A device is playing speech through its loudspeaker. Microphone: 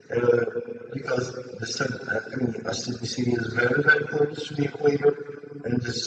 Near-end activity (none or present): none